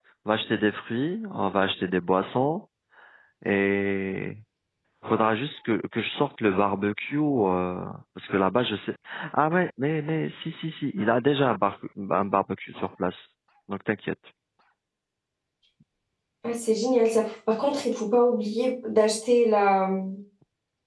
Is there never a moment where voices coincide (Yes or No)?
Yes